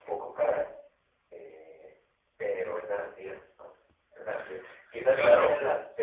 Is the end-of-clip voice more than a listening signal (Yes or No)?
No